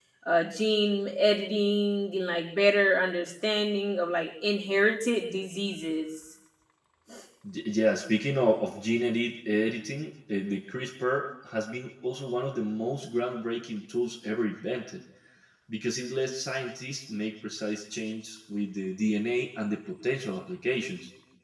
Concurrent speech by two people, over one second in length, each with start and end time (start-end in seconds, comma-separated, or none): none